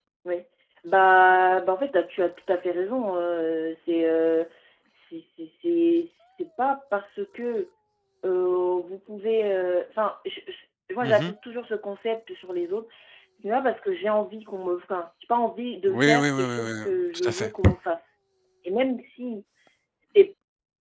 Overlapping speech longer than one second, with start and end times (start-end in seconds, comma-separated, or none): 15.9-17.5